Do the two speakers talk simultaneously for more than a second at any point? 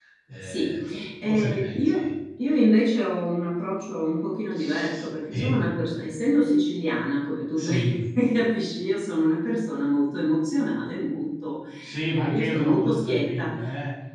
Yes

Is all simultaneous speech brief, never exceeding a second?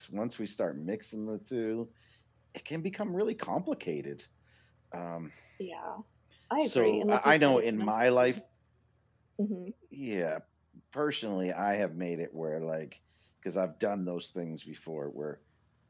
No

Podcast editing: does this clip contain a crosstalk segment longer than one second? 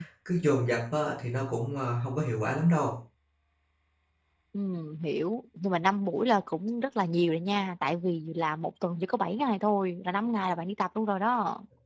No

